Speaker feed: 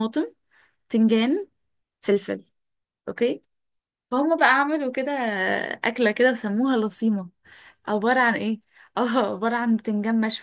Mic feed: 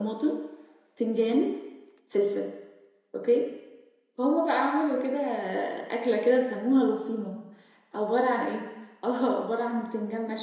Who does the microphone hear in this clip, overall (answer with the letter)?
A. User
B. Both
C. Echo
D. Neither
C